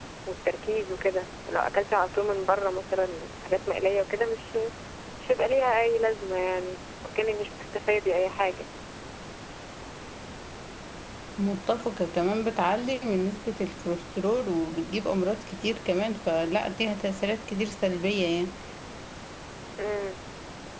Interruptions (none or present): none